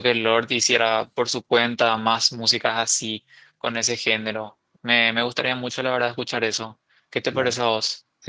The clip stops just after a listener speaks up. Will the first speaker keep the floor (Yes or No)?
No